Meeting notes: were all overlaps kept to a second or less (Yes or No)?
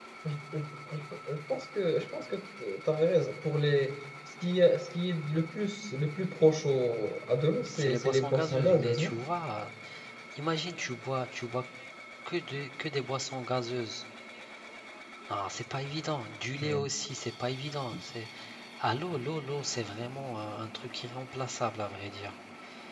No